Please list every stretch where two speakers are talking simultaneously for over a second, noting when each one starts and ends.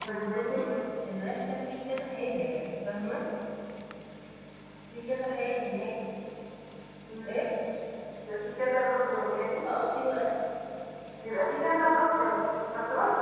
none

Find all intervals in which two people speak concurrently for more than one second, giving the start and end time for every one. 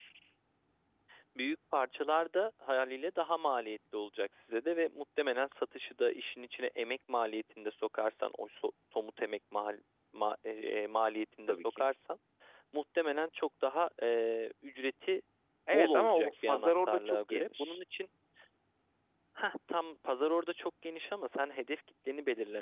15.7-17.8

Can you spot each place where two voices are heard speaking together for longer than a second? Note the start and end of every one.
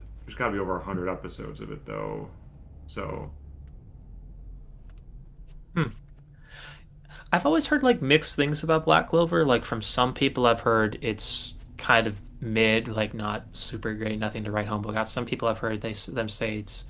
none

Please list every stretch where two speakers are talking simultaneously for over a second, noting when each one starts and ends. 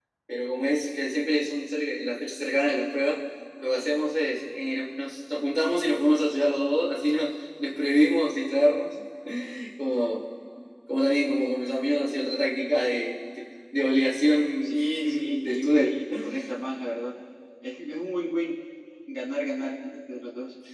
14.6-15.9

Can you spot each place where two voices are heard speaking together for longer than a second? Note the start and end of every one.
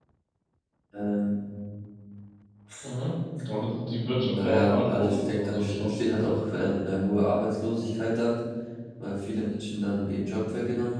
4.0-6.0

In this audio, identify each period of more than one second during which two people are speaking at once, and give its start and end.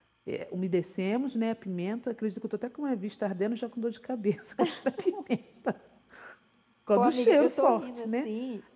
7.0-8.3

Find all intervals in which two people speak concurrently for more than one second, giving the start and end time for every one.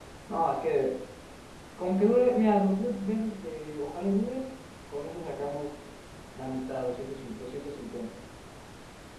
none

